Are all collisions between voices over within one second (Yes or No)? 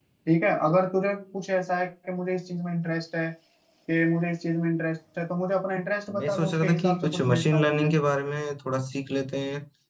No